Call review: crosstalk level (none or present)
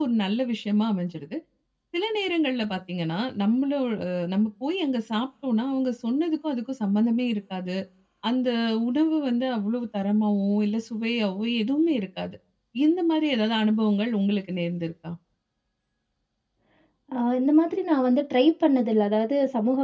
none